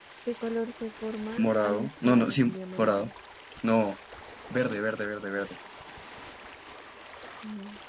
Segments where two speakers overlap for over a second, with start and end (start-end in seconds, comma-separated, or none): 1.4-3.1